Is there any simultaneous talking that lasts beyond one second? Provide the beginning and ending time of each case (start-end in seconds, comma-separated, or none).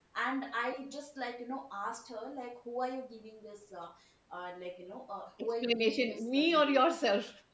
5.4-6.8